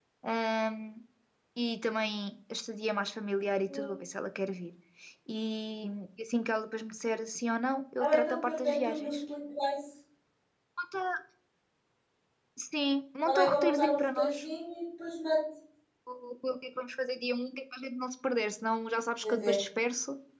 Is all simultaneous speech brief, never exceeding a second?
No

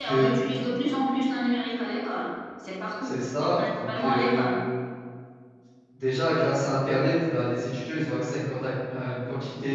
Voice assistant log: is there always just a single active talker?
No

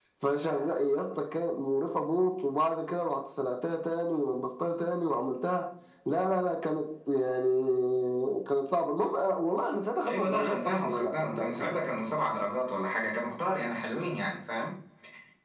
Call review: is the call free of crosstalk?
No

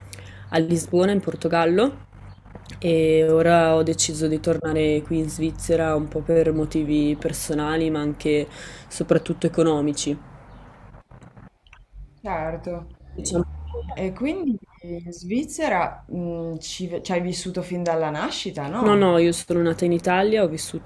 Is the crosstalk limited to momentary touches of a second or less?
Yes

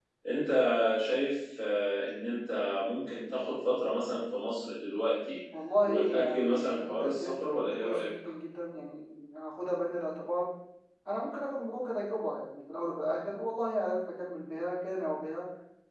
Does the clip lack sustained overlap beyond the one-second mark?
No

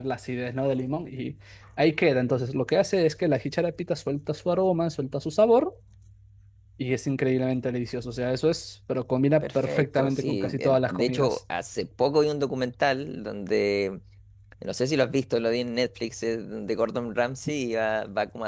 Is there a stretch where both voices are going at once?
Yes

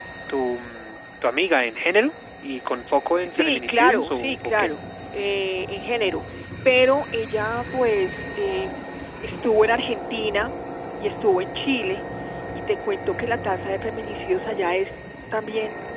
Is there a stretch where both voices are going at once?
Yes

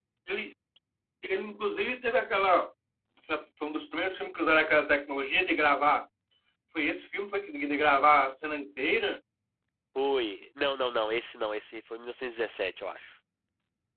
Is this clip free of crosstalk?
Yes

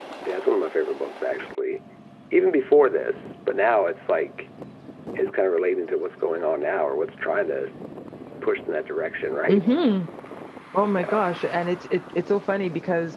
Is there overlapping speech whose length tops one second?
No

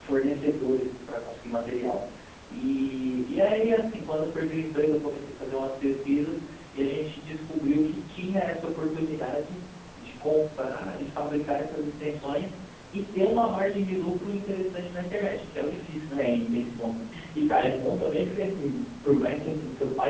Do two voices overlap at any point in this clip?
No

